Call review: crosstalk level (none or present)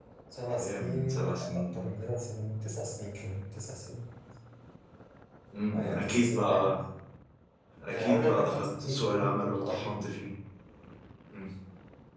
present